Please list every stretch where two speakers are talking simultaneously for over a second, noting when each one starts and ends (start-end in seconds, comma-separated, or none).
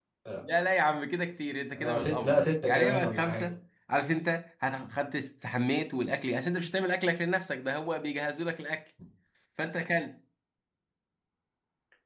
1.8-3.4